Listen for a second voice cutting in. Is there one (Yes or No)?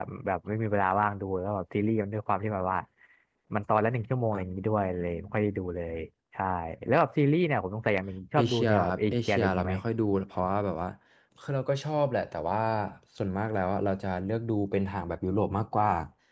Yes